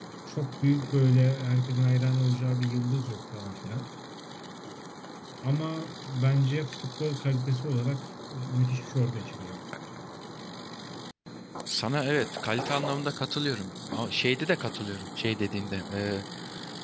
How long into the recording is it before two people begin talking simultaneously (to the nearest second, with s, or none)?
none